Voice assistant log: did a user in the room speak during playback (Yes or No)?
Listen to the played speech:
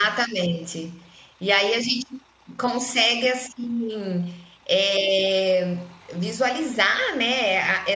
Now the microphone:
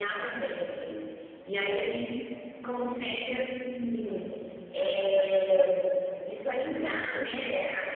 No